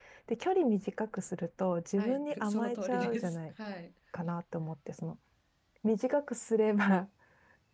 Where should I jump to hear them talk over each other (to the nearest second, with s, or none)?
2 s